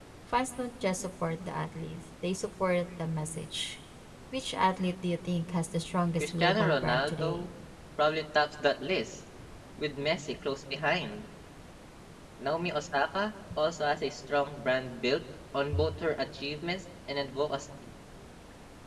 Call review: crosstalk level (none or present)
present